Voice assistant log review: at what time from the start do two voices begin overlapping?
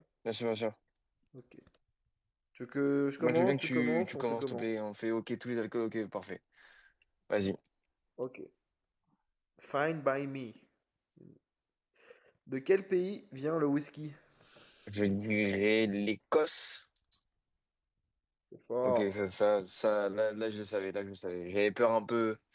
3 s

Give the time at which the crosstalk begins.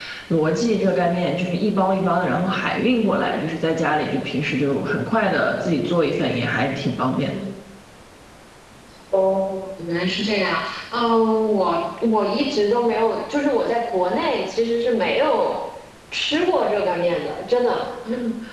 none

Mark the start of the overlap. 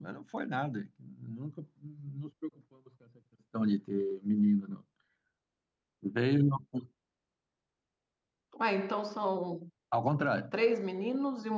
none

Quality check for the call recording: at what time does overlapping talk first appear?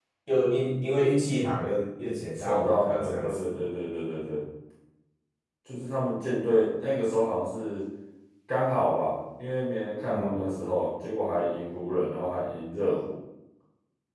2 s

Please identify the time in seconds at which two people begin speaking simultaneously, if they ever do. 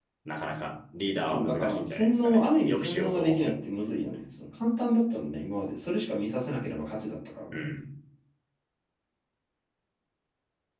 1 s

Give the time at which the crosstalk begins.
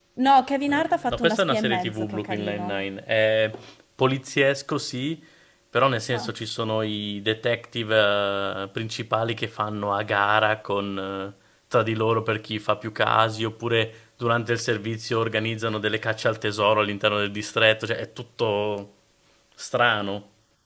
1 s

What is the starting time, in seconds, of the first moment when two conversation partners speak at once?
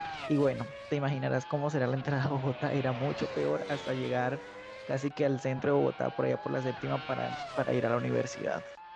none

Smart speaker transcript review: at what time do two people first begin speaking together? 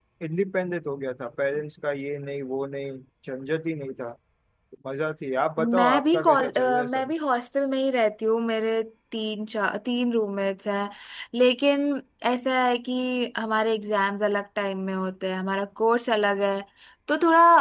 6 s

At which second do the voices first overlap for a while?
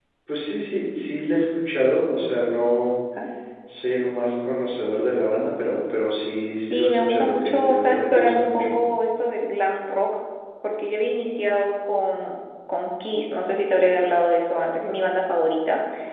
7 s

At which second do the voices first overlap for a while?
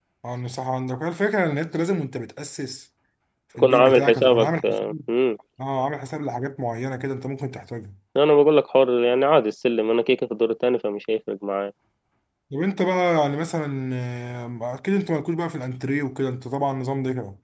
4 s

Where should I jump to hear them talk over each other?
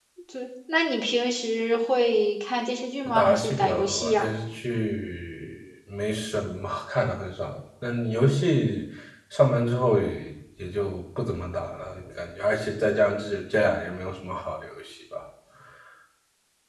3 s

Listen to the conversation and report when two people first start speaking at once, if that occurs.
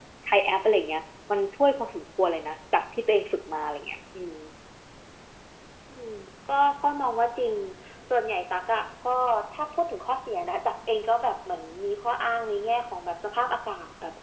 none

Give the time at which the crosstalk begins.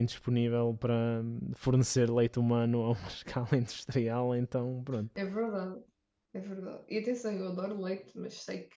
none

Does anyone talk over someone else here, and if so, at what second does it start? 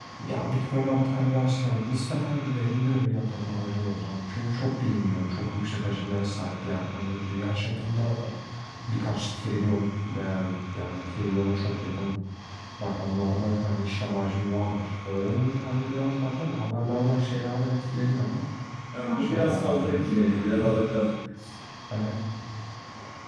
19 s

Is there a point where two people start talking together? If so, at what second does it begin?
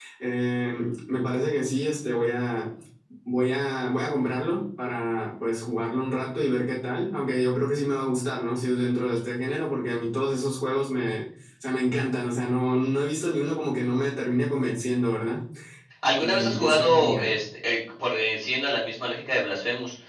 16 s

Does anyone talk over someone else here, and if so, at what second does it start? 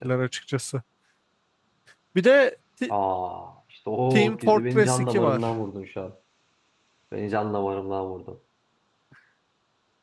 4 s

